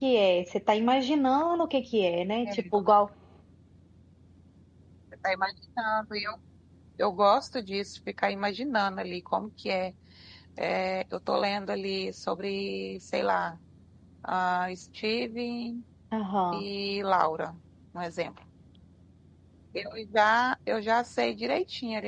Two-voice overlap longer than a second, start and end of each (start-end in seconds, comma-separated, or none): none